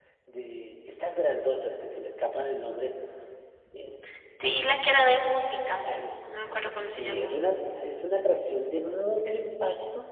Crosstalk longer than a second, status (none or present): none